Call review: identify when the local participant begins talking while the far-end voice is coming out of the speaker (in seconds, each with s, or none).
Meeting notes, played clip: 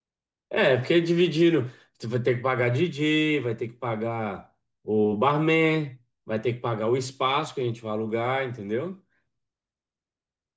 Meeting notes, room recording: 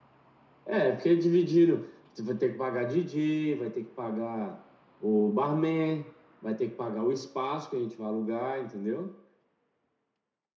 none